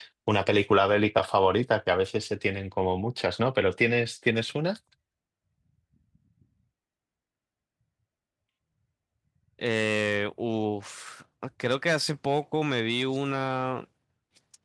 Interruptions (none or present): none